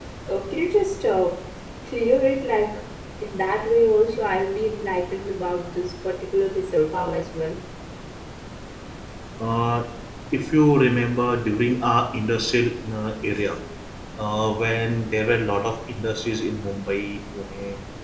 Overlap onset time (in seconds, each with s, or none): none